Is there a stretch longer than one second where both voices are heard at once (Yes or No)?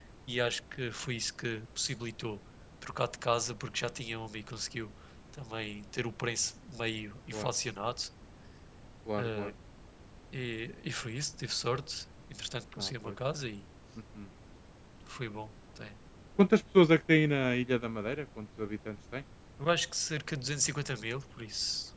No